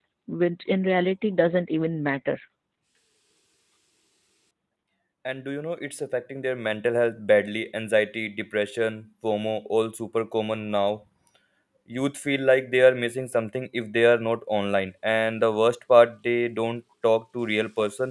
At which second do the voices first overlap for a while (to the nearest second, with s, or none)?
none